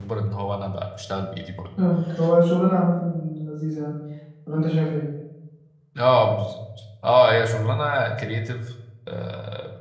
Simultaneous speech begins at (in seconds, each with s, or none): none